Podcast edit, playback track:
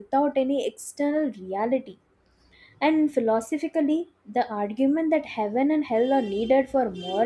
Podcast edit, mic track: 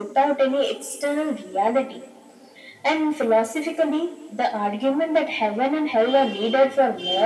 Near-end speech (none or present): none